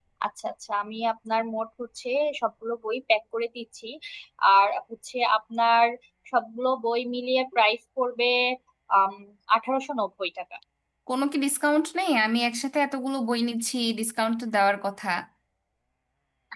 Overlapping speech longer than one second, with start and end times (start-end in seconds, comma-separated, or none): none